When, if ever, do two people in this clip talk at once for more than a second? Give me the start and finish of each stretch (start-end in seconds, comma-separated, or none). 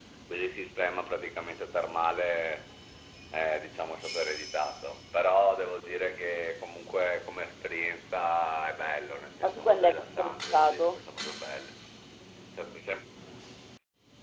9.5-11.0